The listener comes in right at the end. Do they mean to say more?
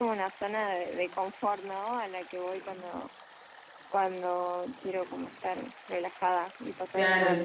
Yes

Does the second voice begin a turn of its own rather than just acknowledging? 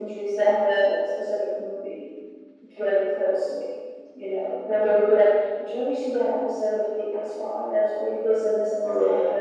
No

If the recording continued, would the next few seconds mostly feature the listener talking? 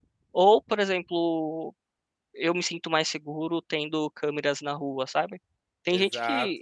No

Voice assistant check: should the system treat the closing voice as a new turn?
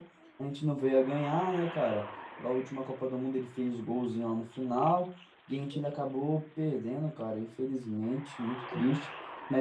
No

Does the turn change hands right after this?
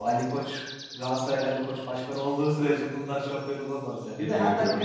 No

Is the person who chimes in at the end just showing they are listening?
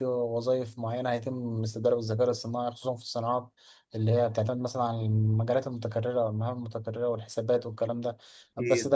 Yes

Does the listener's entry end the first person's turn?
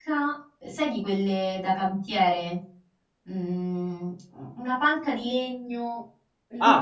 Yes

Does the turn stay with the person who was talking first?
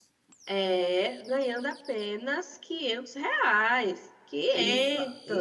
No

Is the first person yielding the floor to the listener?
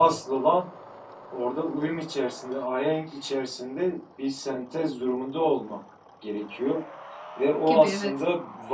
No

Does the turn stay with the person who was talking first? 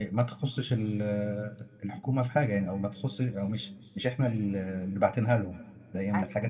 Yes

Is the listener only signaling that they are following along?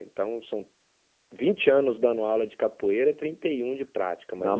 No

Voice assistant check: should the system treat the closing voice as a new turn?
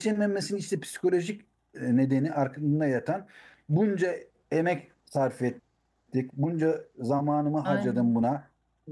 No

